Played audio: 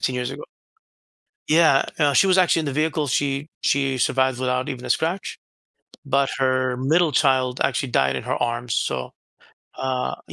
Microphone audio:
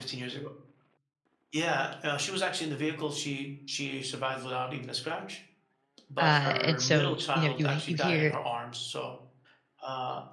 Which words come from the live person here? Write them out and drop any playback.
uh, and so you know you you hear

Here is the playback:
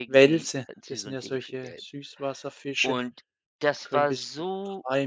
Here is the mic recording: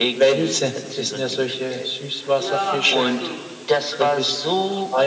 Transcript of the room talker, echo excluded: Ja, weißt du,

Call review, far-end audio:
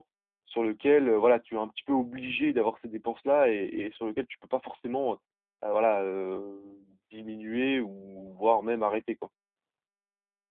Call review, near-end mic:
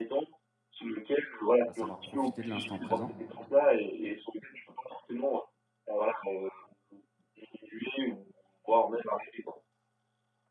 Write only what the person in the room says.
à savoir profiter de l'instant présent»

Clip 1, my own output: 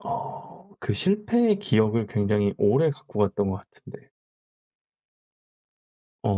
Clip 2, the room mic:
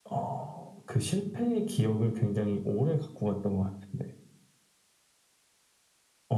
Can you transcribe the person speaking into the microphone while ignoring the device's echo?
none

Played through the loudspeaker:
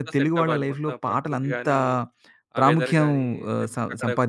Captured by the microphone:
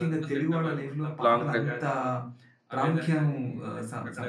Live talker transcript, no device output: లాంగ్ డ్రైవ్?

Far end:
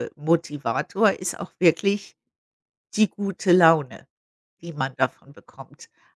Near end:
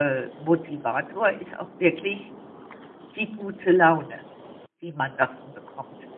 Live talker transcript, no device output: none

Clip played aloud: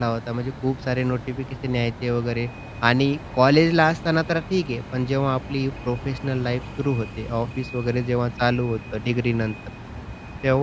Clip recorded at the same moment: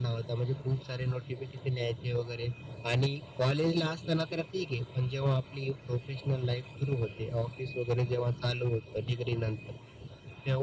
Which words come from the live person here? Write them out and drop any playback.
none

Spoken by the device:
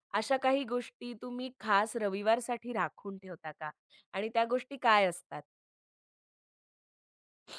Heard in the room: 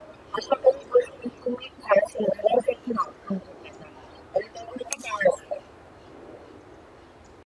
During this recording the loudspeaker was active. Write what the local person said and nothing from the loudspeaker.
none

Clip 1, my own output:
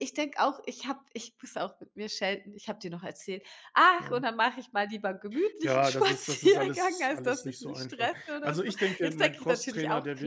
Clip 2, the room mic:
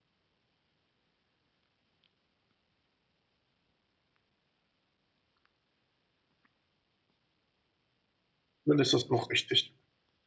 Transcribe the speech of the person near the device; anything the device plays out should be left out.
Dann ist das auch richtig.

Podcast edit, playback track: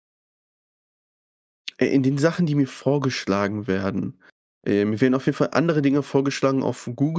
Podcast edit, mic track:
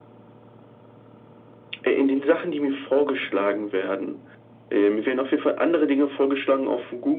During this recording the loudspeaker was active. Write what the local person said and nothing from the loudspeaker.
none

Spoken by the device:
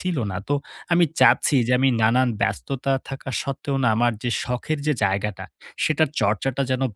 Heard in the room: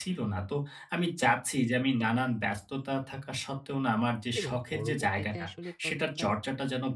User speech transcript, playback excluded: এবং পরবর্তীতে আসলে চর্চাটা

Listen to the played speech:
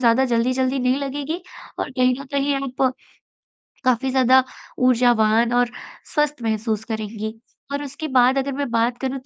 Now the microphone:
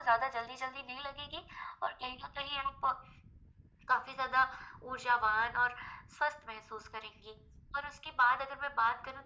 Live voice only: none

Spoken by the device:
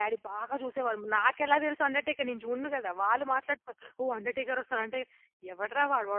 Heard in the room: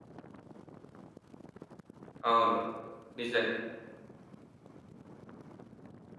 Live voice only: అవును. నిజంగా.

